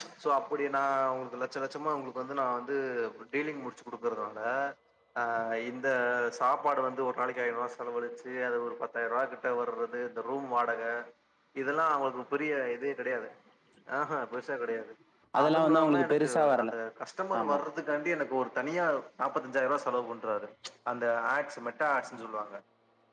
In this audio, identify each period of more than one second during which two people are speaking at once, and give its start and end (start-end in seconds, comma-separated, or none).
15.4-16.7